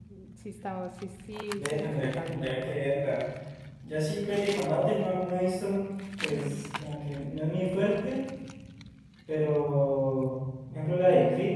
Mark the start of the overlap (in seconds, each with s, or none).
1.5 s